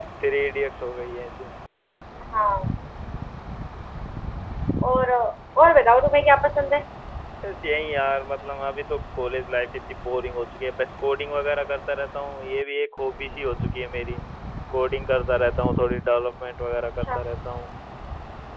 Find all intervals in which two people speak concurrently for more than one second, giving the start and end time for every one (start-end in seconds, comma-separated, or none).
none